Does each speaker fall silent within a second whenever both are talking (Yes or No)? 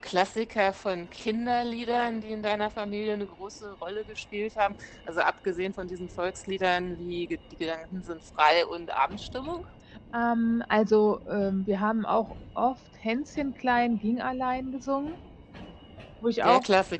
Yes